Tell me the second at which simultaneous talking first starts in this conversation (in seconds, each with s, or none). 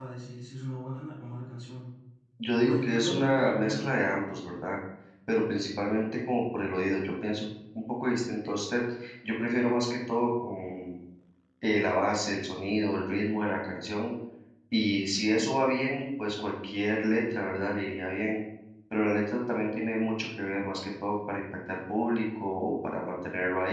2.6 s